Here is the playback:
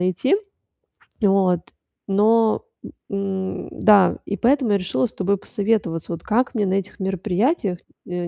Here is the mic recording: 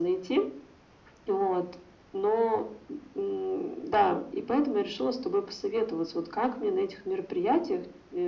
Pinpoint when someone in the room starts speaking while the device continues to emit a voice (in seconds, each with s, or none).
none